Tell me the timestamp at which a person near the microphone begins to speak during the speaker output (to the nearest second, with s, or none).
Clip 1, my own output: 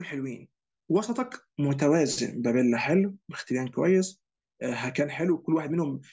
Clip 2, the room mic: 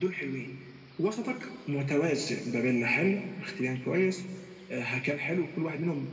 none